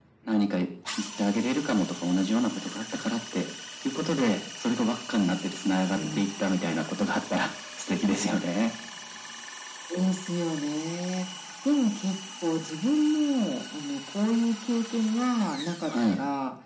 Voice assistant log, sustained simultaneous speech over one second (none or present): none